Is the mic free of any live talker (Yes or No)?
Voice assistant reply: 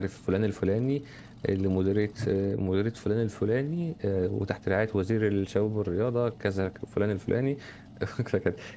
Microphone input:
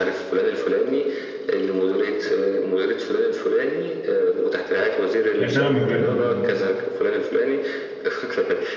No